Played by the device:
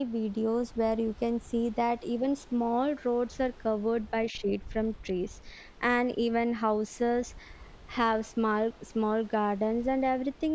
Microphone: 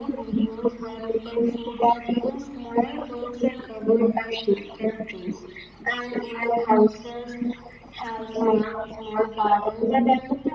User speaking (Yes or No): No